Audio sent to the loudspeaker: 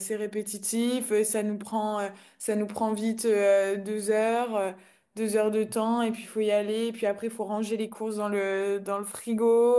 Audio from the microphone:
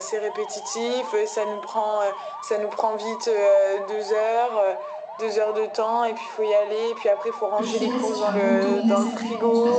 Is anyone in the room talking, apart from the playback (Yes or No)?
Yes